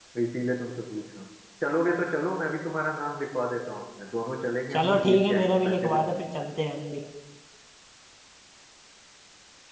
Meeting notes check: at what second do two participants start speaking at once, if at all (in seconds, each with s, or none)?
4.7 s